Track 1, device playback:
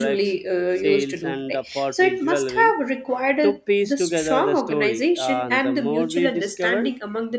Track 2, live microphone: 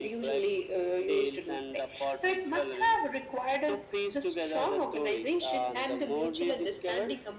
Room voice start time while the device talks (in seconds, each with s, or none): none